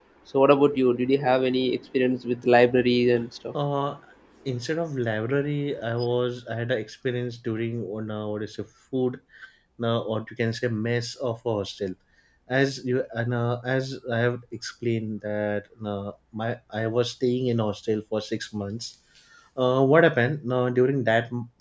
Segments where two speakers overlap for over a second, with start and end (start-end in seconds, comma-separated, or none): none